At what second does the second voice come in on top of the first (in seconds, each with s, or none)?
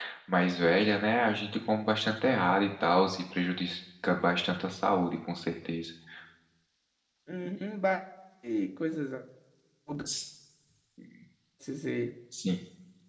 none